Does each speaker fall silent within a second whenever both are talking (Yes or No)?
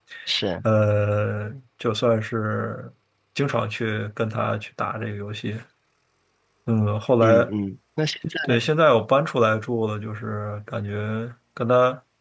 Yes